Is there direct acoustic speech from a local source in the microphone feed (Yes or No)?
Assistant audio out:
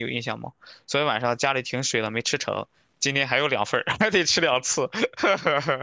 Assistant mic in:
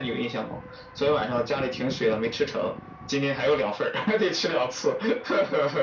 No